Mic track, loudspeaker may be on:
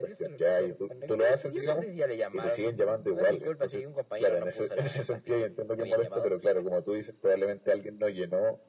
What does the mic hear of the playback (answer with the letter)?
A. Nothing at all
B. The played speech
B